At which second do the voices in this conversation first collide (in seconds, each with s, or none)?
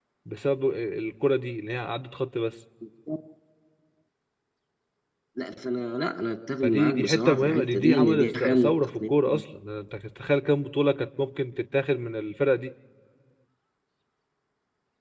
6.6 s